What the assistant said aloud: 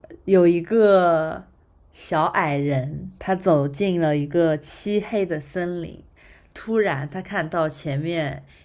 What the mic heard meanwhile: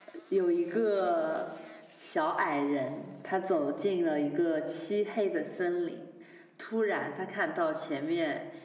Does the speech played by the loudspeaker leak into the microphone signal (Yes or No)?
Yes